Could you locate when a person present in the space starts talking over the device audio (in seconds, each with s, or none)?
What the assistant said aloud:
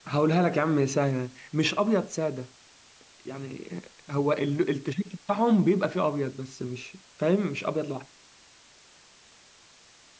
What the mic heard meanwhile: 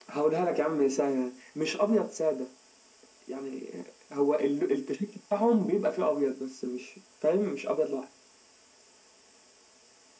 none